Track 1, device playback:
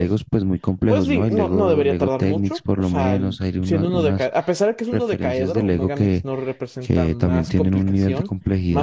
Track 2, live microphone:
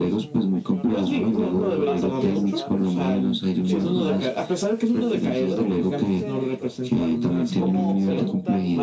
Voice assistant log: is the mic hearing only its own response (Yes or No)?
No